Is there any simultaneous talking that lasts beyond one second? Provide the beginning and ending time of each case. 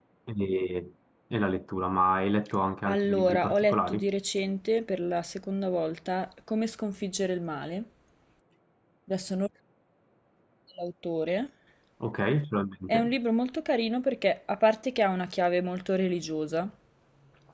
2.9-4.1

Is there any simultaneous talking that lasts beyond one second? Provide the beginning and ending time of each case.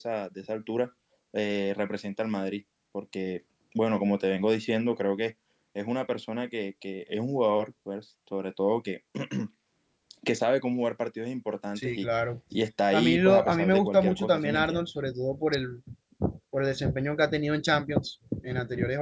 12.9-14.9

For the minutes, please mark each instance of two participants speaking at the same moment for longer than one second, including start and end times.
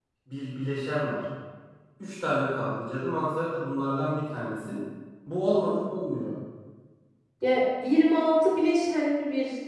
none

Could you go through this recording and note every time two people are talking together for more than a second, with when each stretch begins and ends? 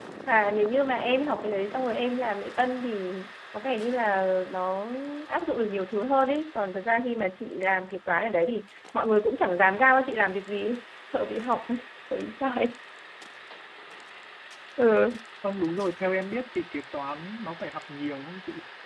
none

